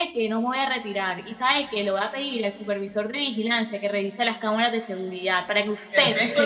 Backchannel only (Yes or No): No